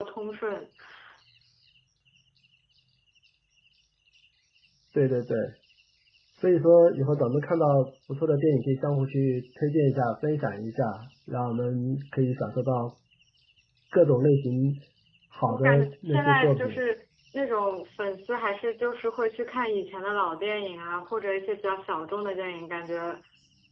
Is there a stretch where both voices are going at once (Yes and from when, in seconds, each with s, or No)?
Yes, from 15.5 s